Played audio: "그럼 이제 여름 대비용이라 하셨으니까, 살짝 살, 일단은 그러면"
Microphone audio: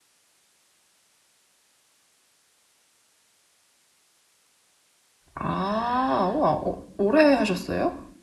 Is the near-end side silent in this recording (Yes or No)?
No